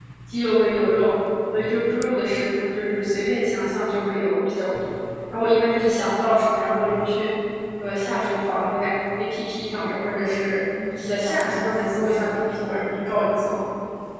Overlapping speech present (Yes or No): Yes